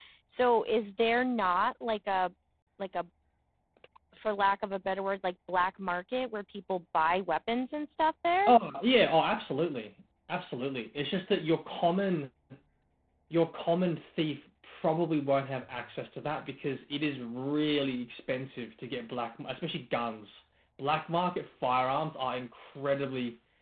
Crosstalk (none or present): none